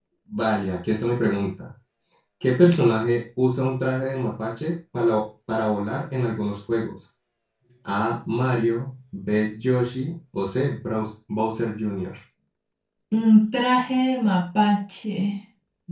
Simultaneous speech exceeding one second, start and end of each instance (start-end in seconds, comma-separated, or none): none